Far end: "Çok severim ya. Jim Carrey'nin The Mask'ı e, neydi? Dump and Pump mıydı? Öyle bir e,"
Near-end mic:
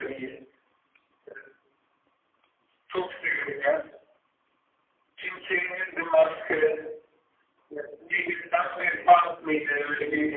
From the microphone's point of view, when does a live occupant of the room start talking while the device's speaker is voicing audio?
none

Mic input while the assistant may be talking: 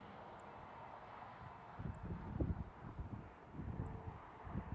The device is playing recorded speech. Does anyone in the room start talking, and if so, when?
none

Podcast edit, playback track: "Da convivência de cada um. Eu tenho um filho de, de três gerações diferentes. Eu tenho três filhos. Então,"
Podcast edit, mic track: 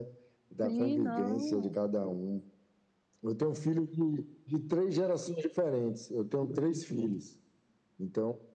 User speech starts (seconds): 1 s

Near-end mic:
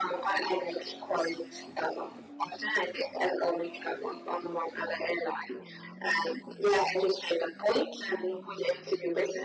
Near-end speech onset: none

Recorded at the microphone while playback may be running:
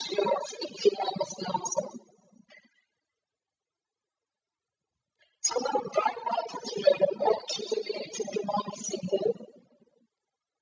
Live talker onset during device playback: none

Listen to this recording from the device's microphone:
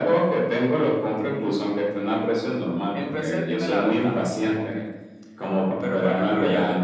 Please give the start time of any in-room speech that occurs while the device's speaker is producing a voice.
3 s

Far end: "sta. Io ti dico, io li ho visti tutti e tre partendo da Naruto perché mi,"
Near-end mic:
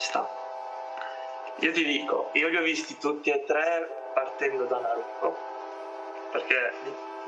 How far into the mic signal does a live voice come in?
none

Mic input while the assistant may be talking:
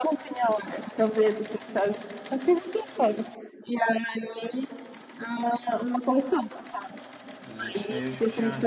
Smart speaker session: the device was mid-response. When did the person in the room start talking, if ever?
7 s

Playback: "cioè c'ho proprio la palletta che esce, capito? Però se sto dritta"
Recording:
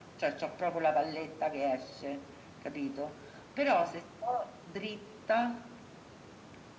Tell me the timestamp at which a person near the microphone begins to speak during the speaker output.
none

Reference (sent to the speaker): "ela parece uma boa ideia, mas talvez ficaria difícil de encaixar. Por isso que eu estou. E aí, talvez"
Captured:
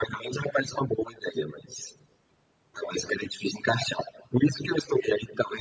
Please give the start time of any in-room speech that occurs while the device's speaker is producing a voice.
none

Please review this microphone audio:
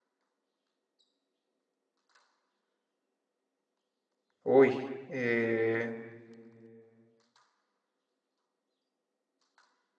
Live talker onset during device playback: 4 s

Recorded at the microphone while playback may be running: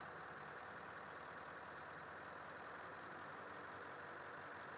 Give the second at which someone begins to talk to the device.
none

